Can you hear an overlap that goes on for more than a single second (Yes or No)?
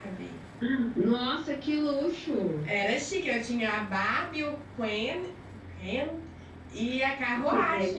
No